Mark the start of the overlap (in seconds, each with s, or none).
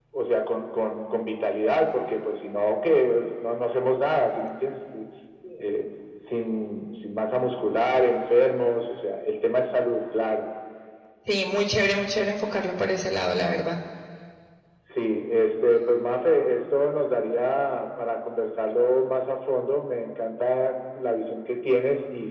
none